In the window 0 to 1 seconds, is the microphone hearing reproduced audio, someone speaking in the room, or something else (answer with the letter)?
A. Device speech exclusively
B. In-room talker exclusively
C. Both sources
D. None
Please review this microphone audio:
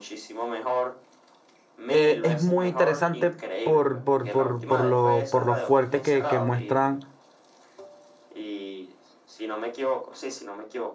A